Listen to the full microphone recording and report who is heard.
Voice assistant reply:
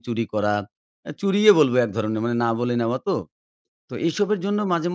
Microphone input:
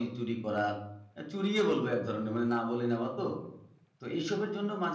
echo only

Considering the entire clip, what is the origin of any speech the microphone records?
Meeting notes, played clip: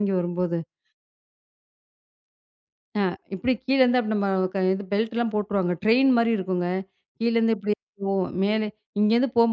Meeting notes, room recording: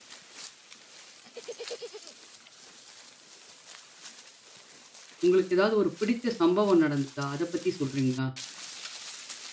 user only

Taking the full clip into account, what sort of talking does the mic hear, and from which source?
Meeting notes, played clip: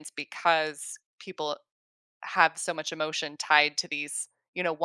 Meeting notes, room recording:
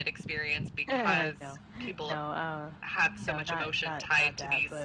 both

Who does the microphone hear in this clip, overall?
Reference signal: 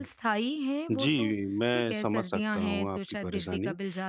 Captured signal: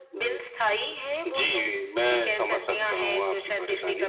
echo only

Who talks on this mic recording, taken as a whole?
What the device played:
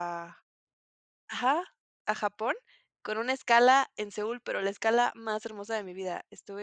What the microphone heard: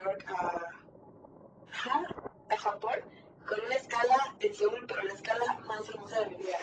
echo only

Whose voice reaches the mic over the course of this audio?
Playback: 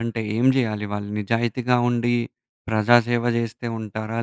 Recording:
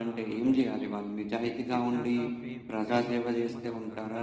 both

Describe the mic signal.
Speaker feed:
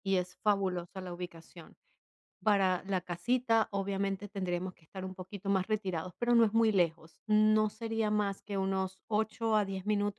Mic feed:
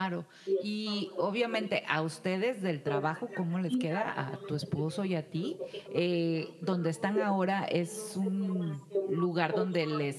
both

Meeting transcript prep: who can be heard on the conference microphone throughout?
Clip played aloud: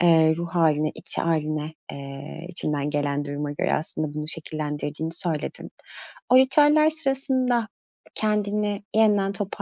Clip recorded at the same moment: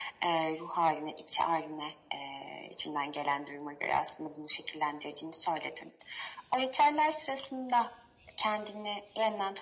echo only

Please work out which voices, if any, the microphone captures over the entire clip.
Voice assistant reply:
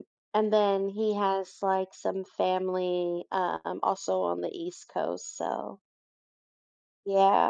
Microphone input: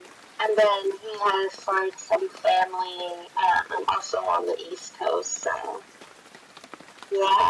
echo only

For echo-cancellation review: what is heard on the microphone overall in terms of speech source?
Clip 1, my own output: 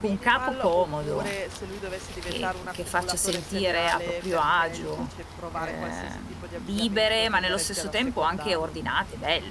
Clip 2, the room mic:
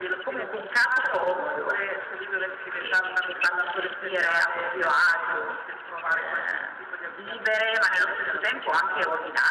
echo only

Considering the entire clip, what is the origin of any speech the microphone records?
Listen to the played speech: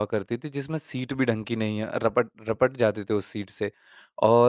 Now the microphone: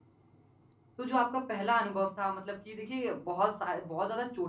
user only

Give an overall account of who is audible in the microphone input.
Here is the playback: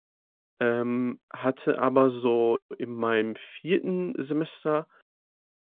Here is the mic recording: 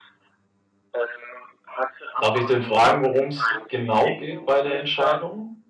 both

